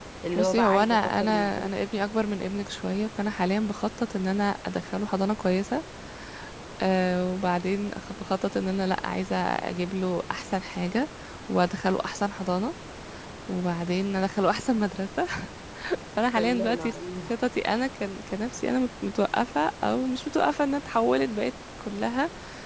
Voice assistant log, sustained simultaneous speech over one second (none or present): present